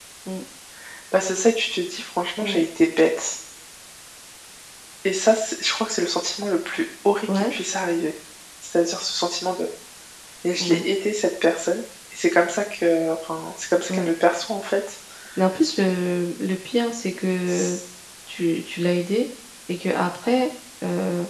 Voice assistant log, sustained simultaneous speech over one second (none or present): none